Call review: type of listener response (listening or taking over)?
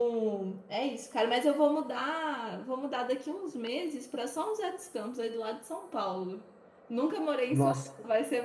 listening